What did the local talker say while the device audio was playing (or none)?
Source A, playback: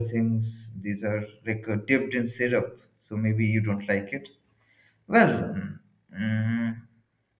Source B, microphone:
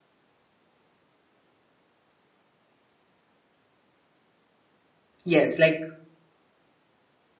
yes, like